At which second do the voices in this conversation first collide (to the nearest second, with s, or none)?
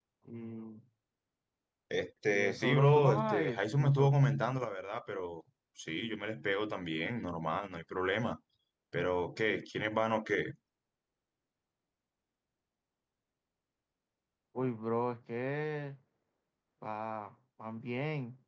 2 s